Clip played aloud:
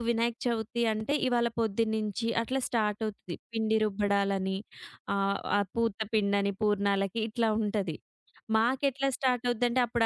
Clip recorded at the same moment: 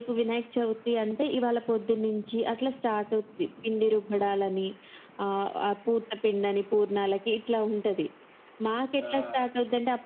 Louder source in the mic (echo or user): echo